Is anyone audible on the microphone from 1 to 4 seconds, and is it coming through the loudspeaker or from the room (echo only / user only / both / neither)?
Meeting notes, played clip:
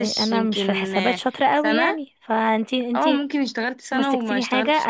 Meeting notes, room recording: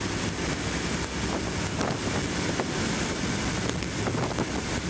neither